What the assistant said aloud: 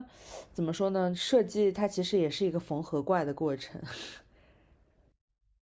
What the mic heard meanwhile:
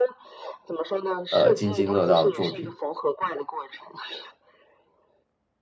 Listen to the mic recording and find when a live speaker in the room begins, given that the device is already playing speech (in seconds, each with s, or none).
1.3 s